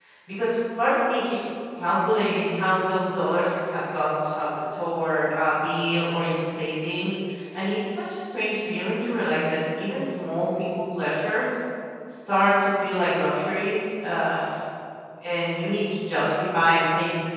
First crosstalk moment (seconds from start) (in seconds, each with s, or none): none